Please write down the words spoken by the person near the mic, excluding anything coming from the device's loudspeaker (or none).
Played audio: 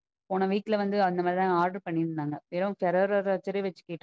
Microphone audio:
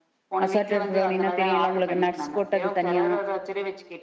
அசாட்டட் பிரவுனினா தெரியுல்ல உங்களுக்கு நட் ஸ் போட்டது தனியா